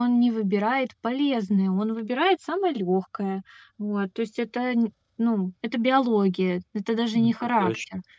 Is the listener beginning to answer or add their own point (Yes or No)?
No